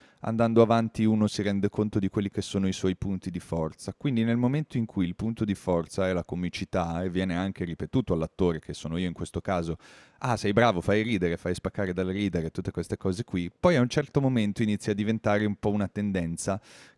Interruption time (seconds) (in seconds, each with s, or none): none